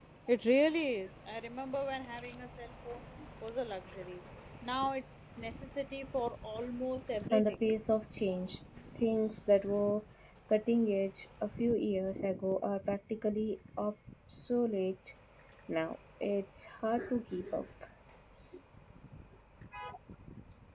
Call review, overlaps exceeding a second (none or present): none